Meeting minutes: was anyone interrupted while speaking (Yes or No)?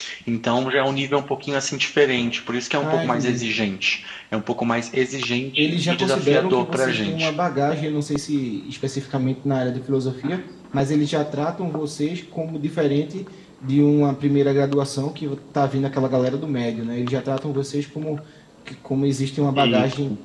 Yes